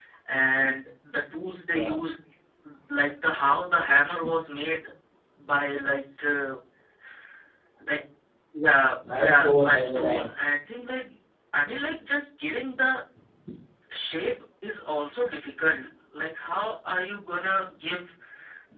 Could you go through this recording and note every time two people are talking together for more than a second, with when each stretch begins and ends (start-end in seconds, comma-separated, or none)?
9.1-10.4